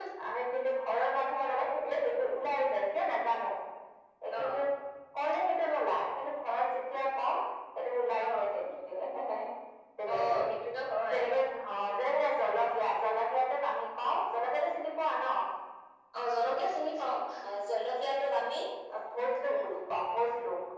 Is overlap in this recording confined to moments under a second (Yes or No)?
Yes